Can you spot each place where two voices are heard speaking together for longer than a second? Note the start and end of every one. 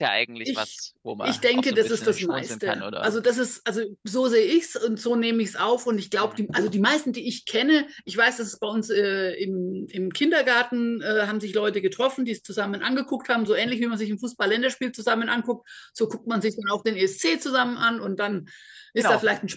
1.2-3.1

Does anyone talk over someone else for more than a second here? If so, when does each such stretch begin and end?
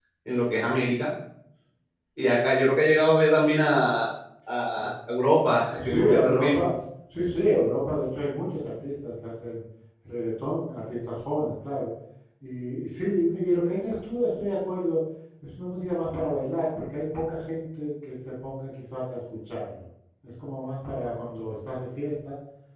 5.4-6.7

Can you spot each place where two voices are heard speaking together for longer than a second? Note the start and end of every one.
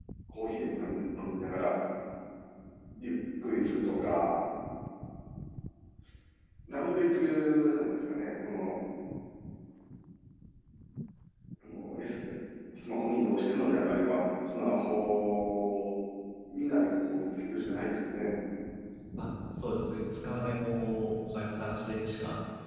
none

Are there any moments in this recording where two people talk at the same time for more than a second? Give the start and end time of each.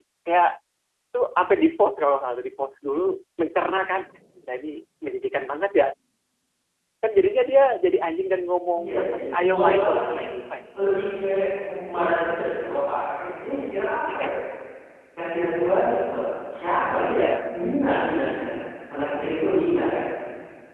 8.8-10.2

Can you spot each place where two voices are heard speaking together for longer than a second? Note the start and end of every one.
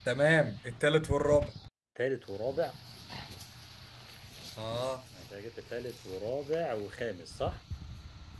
none

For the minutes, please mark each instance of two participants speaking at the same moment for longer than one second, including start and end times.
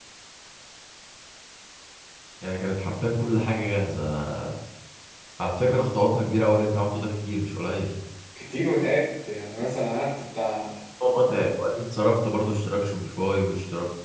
none

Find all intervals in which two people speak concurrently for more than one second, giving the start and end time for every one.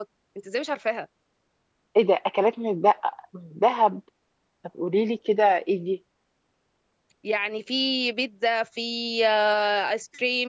none

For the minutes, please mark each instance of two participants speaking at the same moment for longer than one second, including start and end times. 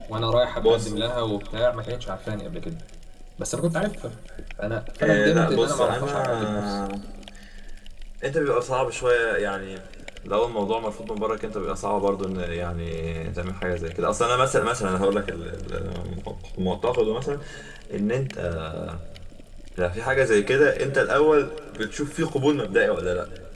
5.0-6.8

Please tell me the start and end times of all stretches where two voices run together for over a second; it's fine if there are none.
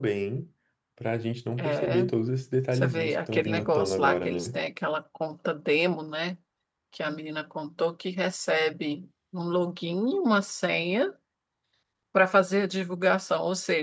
2.7-4.6

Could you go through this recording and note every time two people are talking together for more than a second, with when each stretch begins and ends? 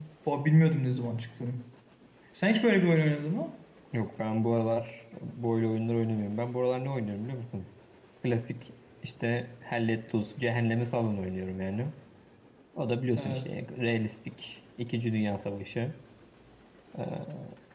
none

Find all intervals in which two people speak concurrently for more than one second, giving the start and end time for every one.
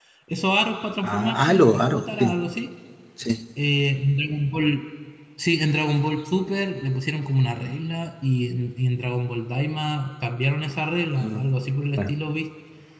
1.0-2.3

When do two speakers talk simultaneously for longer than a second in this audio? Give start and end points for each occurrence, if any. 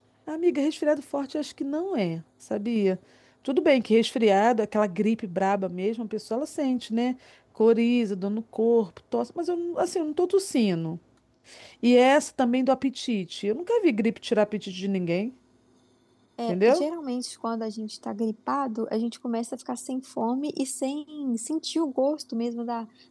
none

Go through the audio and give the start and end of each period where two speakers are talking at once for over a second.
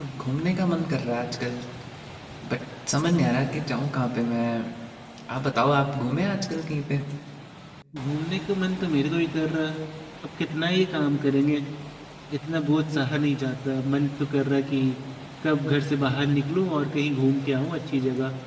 none

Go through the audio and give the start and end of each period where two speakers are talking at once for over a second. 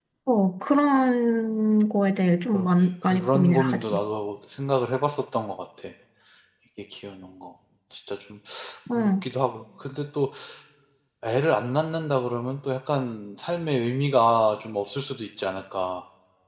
2.5-4.0

